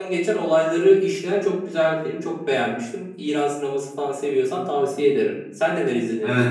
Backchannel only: No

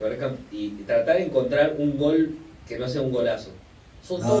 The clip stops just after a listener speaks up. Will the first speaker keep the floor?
No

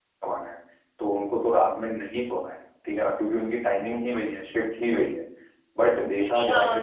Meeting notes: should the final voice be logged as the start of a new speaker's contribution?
Yes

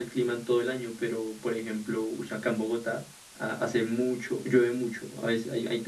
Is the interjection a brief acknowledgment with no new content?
Yes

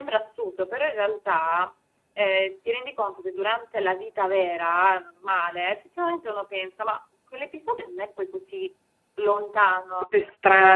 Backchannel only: No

